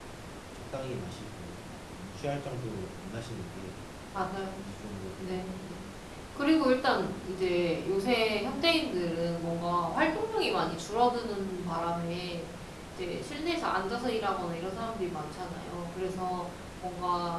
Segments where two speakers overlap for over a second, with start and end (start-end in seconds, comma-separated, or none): none